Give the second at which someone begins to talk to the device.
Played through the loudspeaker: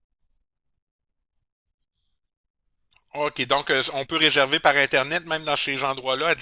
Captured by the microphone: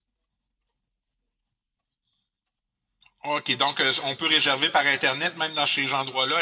none

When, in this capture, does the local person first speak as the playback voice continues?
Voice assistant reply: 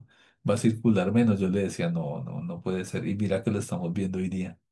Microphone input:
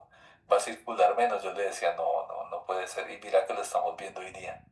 none

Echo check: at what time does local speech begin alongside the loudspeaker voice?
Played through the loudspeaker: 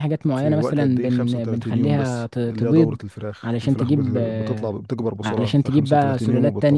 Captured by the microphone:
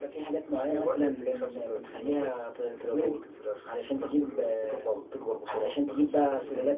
none

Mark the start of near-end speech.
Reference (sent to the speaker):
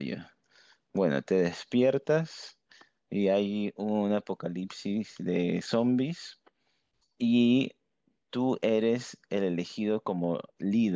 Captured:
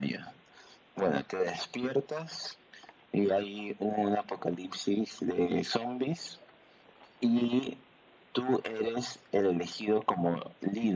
none

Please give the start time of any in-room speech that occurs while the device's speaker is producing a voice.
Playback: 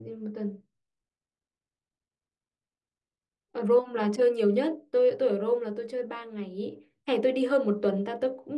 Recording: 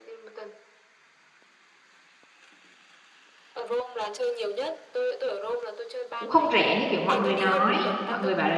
6.2 s

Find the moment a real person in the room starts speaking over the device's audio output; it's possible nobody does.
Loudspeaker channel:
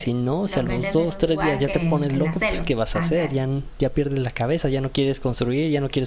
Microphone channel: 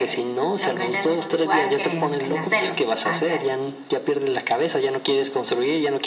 none

